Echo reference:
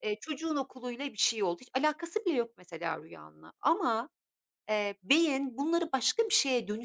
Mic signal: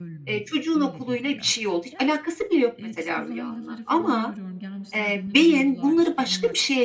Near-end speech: present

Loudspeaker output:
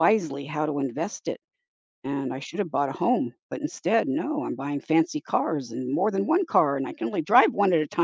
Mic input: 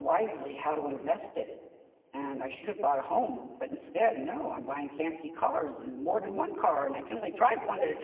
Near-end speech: none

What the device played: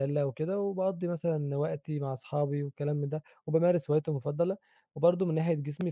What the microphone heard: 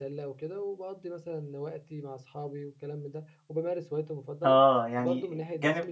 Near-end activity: present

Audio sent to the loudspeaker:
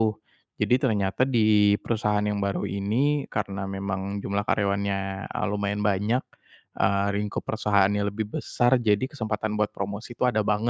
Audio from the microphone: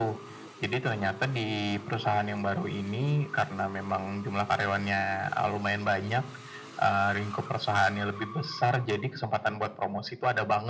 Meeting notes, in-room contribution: none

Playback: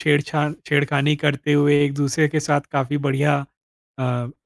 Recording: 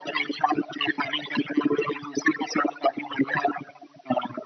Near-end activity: none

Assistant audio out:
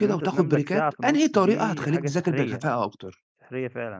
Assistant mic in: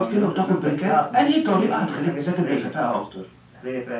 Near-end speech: none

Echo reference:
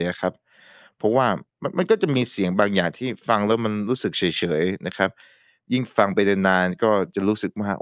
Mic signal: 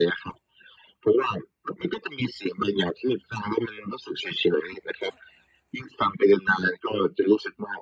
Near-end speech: none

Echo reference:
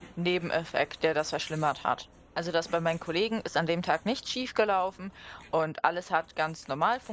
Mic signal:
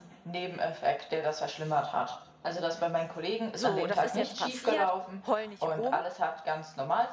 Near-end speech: present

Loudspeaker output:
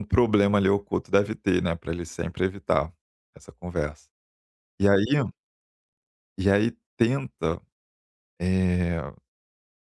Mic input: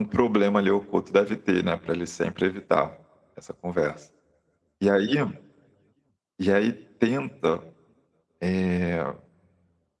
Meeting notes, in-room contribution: none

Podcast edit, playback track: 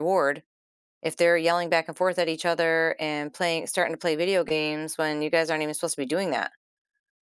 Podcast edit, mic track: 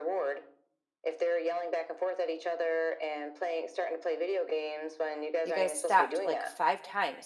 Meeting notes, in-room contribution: present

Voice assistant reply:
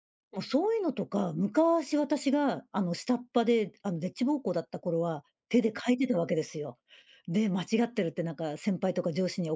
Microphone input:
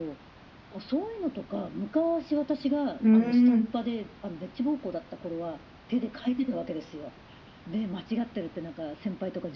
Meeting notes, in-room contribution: present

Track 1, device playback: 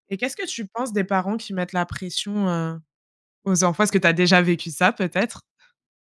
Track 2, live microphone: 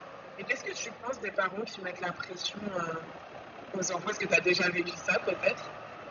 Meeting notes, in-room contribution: none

